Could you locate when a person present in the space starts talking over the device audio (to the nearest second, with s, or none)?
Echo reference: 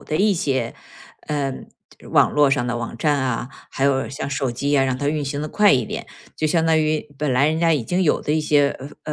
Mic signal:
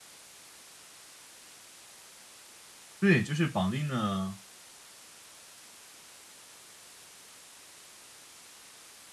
3 s